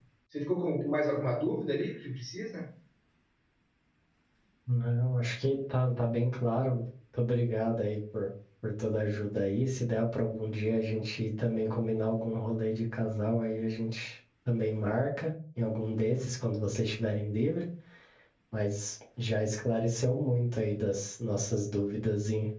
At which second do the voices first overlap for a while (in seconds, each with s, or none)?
none